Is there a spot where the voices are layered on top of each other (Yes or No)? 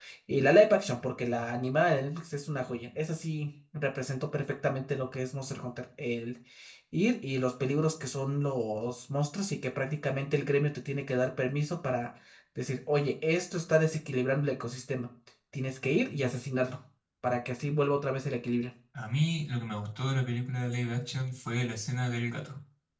No